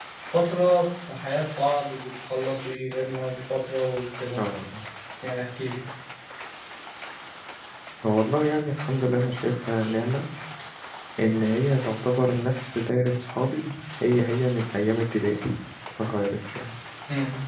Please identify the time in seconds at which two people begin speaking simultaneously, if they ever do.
none

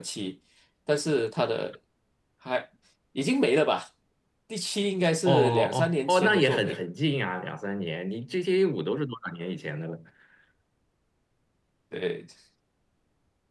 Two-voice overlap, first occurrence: 5 s

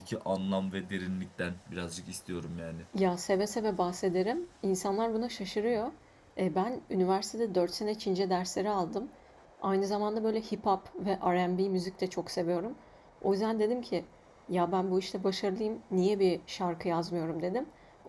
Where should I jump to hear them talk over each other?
none

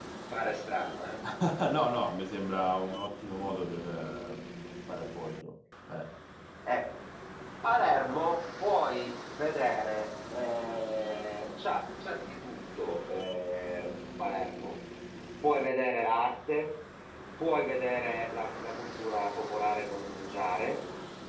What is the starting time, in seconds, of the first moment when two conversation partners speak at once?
none

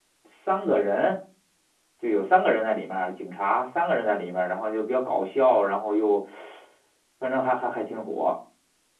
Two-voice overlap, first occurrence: none

